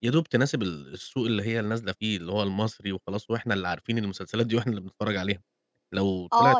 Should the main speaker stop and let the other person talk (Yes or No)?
Yes